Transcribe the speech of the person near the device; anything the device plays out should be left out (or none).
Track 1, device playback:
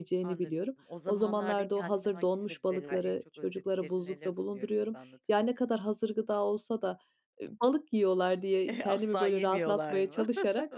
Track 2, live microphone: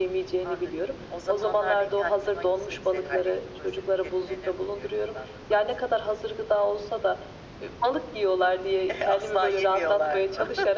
none